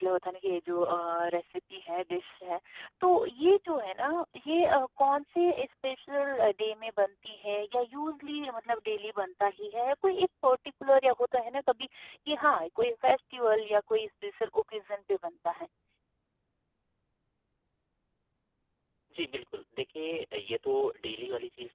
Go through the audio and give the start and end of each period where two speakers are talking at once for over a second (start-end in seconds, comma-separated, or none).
none